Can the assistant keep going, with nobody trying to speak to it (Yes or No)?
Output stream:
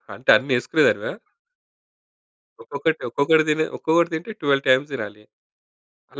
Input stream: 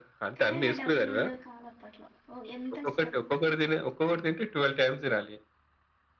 No